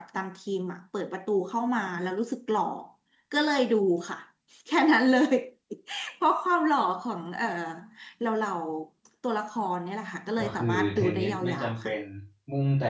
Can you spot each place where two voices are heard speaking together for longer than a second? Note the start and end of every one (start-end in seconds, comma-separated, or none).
10.4-11.9